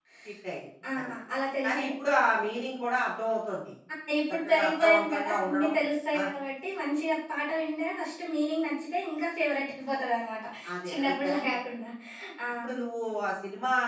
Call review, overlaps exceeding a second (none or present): present